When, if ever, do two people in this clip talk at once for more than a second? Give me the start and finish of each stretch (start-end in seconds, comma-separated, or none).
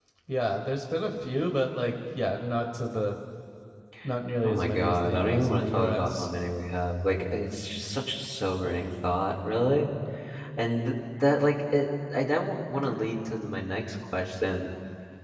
4.4-6.3